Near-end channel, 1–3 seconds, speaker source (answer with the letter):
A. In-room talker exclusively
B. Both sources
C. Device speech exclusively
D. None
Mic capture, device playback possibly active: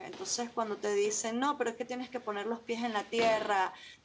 A